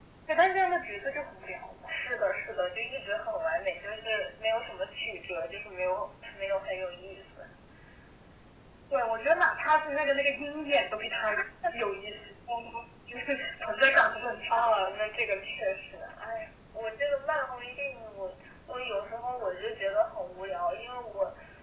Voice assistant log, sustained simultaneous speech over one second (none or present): none